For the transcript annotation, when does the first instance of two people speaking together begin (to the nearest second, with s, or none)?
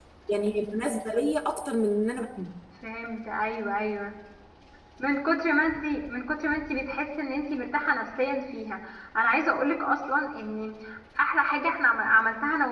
none